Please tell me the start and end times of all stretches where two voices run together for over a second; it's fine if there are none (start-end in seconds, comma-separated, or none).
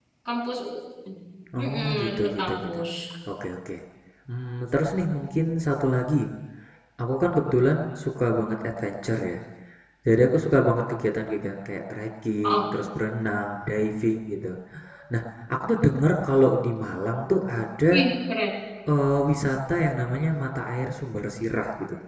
1.6-2.8